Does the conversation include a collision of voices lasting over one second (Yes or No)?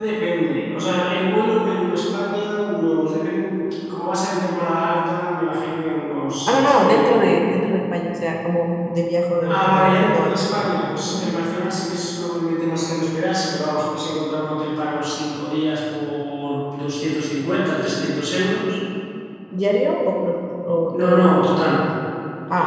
Yes